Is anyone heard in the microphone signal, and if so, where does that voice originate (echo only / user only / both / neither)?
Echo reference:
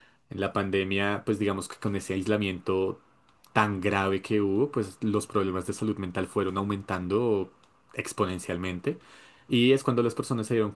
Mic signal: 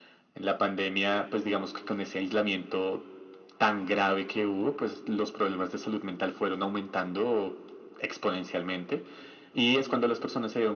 echo only